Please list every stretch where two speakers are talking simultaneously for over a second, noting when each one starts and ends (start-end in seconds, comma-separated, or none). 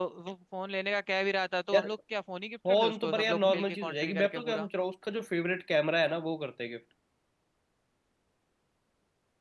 2.7-4.7